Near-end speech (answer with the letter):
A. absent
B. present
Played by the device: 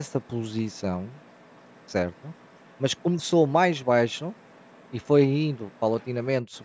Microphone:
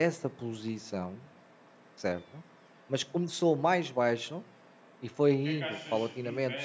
B